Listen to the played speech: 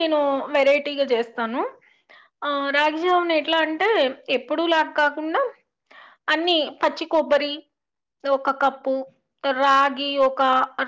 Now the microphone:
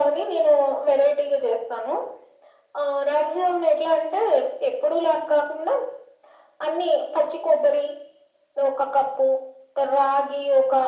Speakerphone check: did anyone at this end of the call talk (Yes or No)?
No